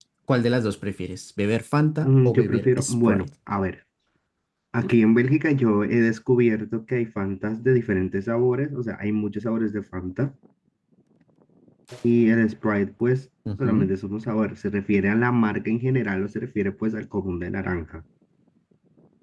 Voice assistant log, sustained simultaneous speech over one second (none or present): present